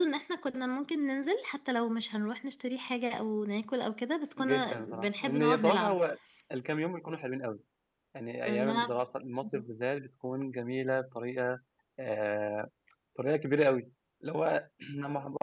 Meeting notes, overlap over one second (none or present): present